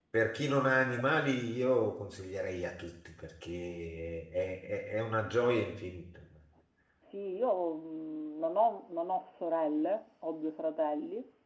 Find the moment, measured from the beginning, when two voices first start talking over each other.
none

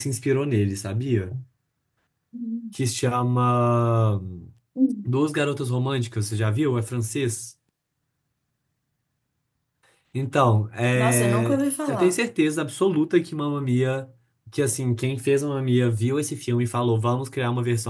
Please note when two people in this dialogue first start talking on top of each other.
10.9 s

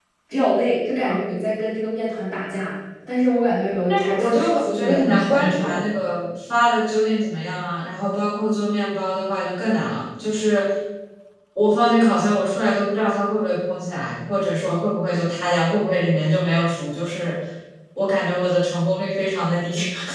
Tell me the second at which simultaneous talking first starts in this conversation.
3.9 s

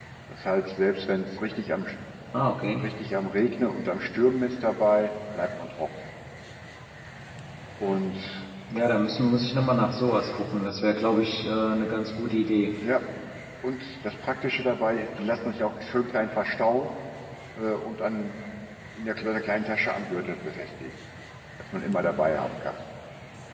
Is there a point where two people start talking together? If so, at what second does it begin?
none

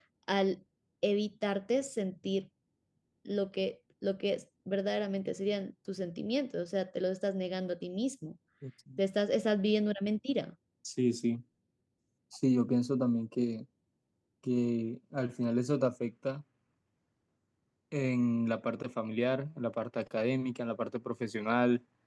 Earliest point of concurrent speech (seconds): none

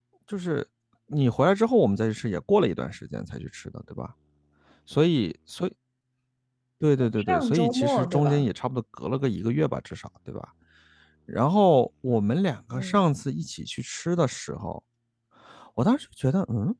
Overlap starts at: 7.2 s

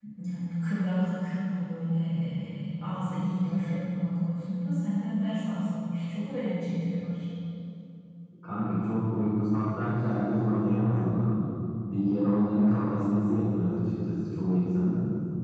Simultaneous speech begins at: none

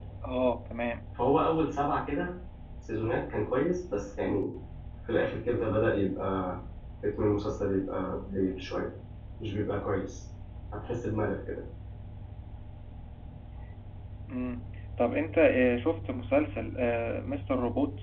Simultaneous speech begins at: none

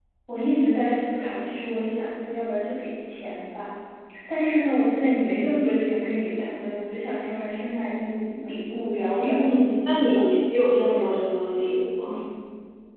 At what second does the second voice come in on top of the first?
9.0 s

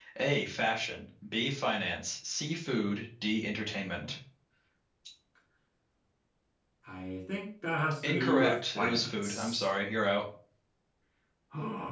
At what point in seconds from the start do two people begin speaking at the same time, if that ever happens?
8.0 s

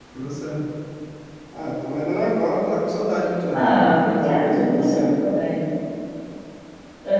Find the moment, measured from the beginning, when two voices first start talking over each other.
3.5 s

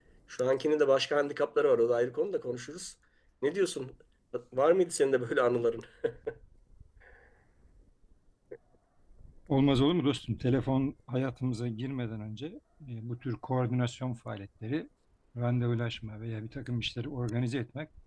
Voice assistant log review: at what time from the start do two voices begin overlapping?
none

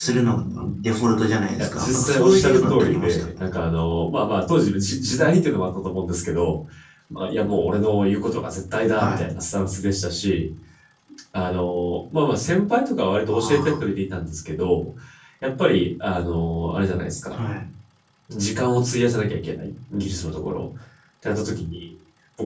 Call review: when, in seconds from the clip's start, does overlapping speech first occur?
1.6 s

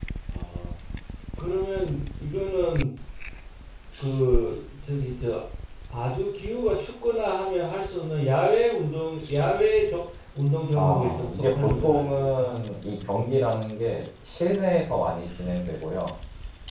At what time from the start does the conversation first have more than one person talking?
10.7 s

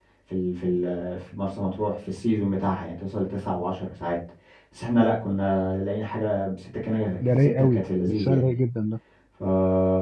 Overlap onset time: 7.2 s

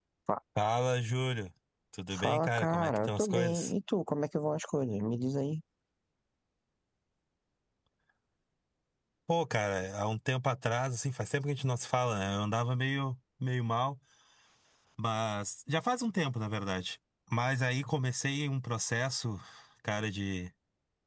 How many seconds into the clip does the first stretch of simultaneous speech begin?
2.1 s

